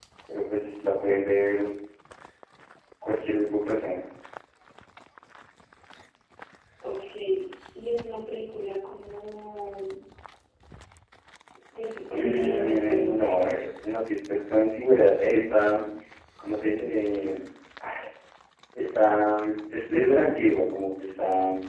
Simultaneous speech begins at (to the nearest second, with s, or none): 12 s